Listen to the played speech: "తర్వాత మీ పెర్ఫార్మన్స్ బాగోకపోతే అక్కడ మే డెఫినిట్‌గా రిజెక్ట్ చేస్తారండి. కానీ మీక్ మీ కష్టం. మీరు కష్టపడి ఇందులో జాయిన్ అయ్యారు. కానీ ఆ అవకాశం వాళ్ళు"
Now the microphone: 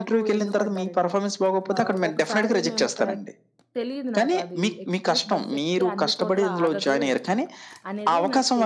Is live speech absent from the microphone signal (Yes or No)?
No